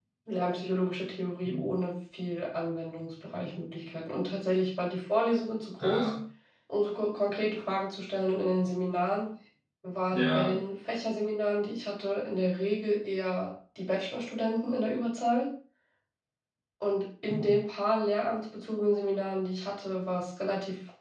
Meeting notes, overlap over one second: none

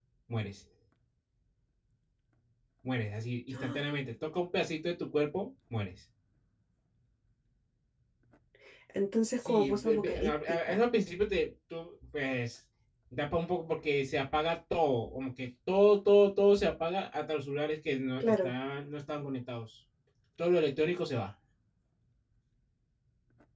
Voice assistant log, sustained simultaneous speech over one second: present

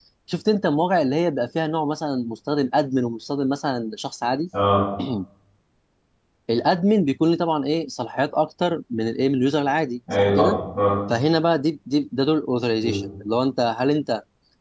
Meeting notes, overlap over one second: none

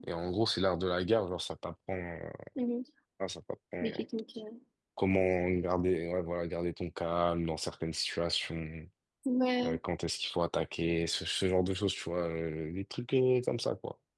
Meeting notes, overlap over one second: none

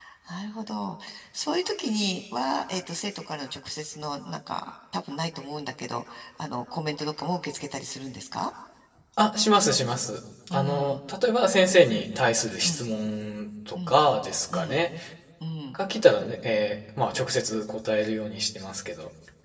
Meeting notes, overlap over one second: none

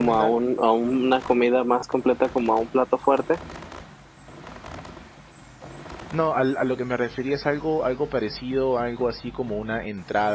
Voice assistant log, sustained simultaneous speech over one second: none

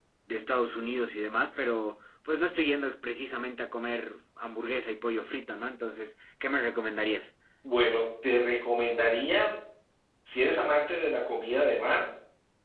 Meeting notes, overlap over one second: none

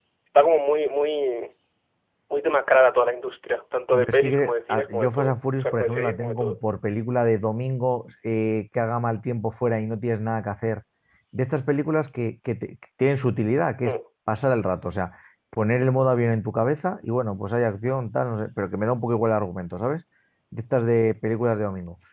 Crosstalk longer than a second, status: present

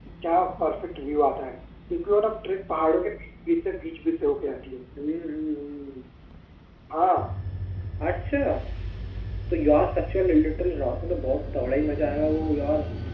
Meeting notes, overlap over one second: none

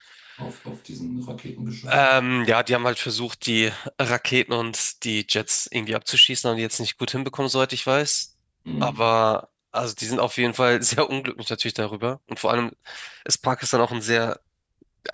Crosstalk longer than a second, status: none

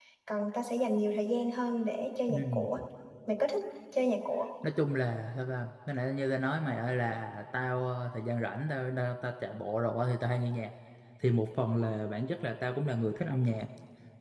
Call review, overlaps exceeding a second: none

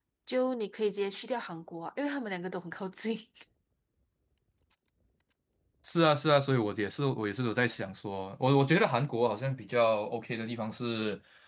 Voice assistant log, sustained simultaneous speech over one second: none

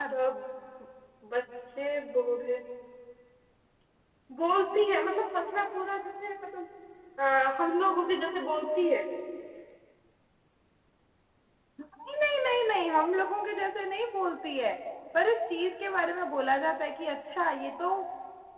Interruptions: none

